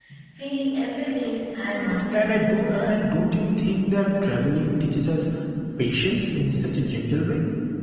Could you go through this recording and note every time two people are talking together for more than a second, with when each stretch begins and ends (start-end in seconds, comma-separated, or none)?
1.7-3.0